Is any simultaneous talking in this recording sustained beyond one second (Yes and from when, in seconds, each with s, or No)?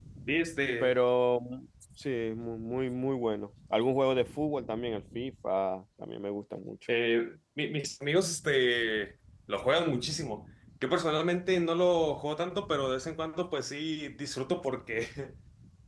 No